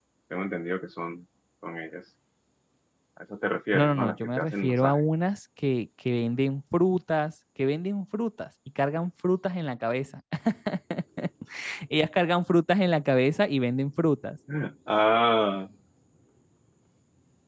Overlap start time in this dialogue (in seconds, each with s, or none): 3.7 s